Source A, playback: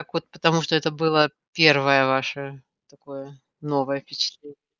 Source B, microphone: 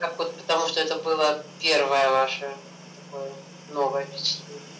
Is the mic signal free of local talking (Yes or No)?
Yes